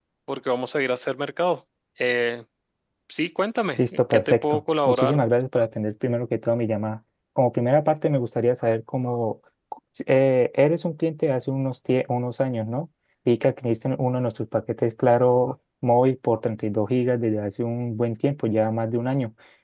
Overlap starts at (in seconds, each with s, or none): 3.8 s